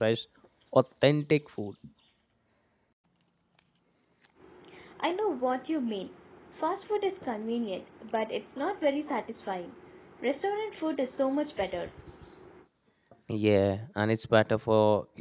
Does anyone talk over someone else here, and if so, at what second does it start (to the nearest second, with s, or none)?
none